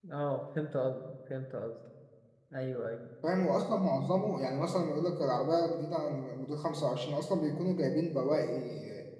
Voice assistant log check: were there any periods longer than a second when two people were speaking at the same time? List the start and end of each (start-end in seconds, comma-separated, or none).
none